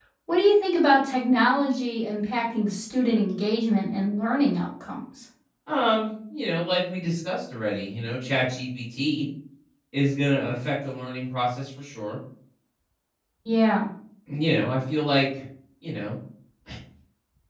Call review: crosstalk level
none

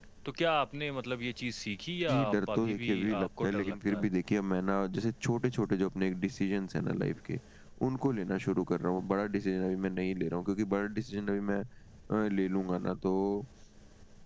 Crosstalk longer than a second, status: present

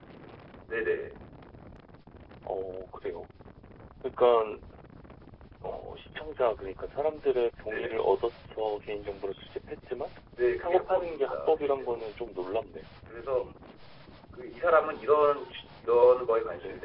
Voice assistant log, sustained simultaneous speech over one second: present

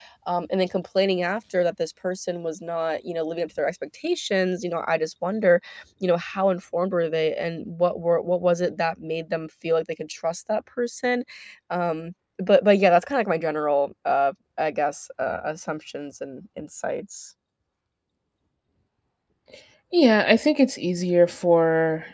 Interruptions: none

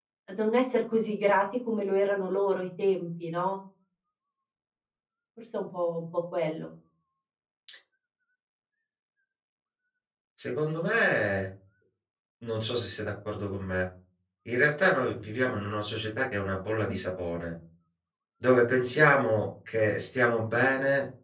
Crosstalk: none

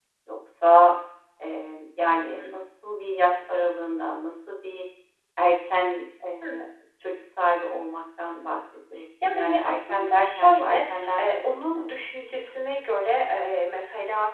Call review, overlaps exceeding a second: present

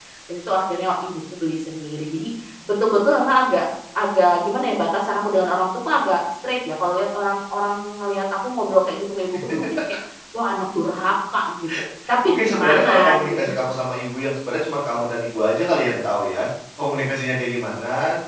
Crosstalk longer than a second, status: present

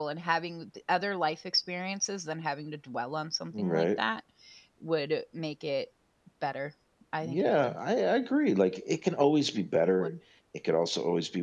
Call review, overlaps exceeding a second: none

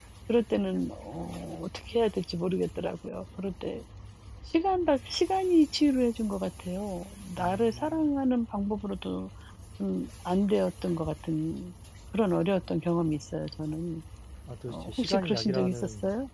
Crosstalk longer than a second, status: present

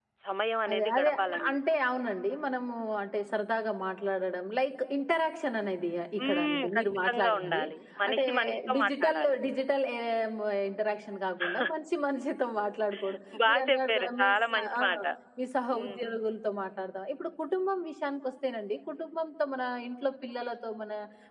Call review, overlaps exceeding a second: present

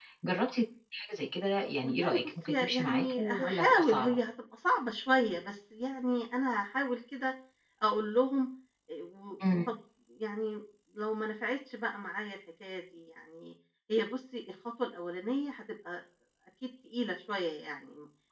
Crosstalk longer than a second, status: present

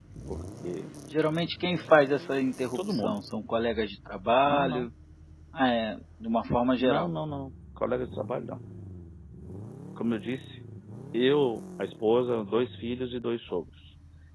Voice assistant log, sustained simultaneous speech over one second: none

